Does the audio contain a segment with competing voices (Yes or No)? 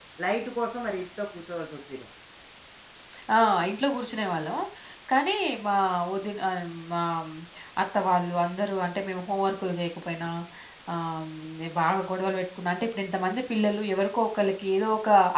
No